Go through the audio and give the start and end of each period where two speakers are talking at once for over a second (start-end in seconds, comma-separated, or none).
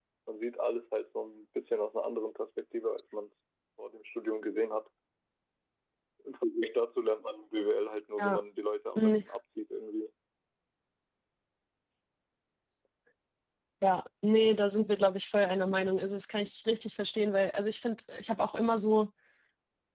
none